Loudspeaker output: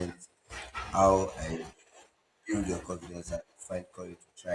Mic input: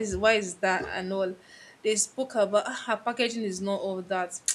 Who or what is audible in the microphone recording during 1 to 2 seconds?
user only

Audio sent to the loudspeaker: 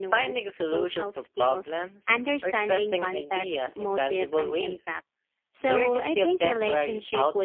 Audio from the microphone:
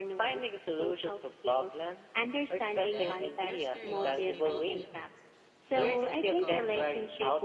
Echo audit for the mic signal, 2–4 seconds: both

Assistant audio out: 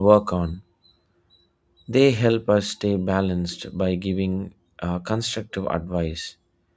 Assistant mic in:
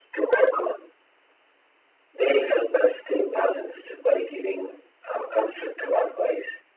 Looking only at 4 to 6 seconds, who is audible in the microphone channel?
echo only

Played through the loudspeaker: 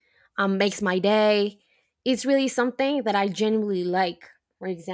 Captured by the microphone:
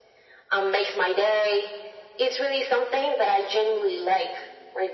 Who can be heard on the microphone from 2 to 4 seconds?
echo only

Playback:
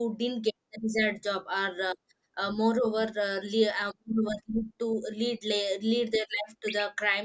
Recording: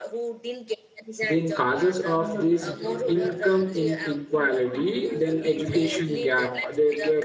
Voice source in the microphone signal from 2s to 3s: both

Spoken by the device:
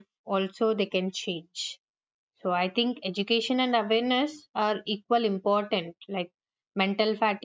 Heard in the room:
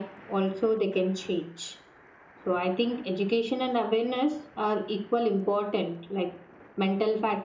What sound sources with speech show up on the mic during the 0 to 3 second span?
echo only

